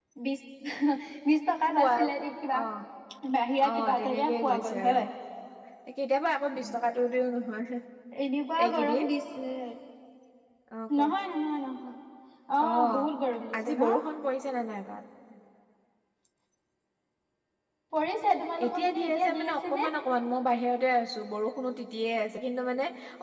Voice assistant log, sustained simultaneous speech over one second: present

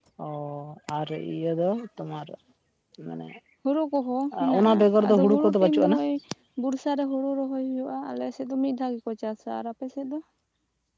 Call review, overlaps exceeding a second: present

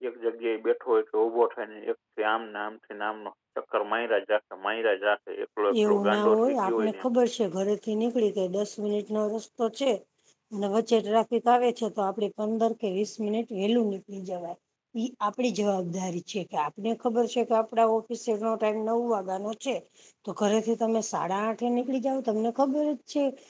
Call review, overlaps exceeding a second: present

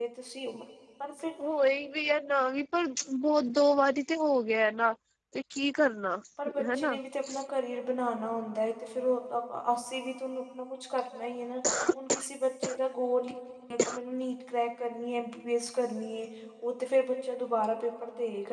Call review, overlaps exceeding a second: none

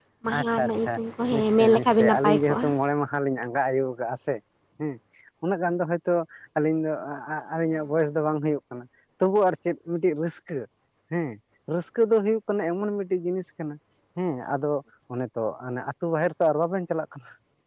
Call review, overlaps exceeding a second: present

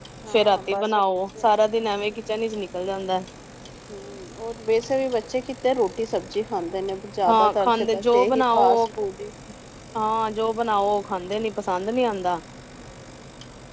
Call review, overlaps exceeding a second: present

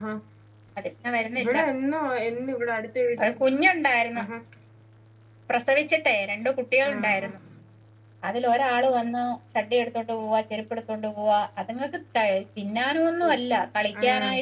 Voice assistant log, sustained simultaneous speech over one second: none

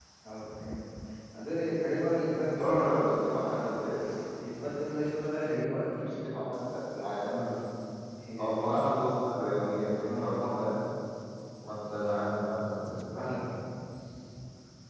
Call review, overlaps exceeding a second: none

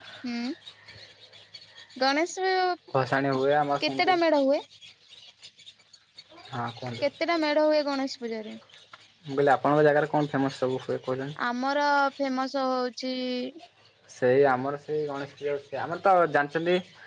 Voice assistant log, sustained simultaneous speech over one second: none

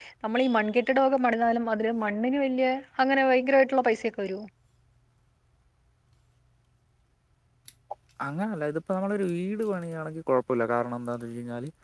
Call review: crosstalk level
none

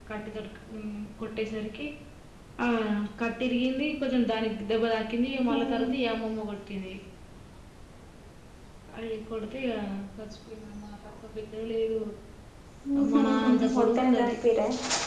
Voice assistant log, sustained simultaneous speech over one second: present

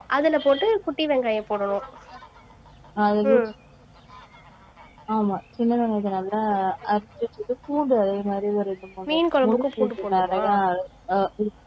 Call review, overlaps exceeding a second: present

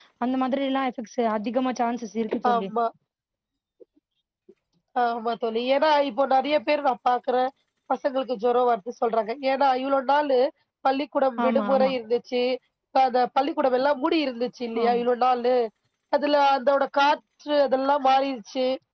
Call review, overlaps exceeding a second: none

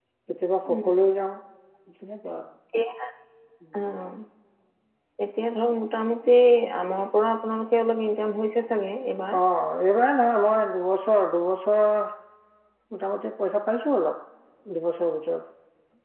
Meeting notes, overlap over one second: none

